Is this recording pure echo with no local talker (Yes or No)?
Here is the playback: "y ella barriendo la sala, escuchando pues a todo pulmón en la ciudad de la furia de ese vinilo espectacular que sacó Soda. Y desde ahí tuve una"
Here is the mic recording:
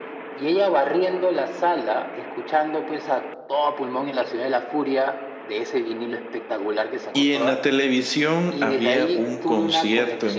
No